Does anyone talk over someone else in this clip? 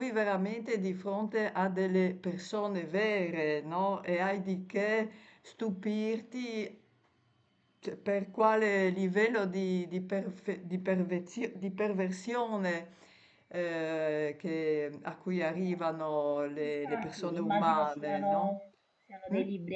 Yes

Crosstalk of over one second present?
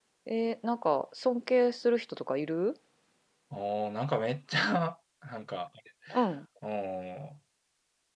No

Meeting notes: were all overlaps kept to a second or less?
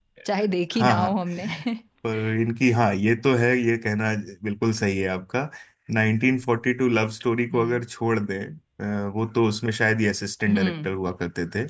Yes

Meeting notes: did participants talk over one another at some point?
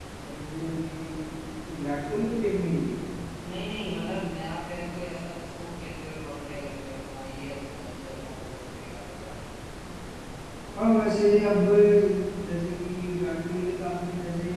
No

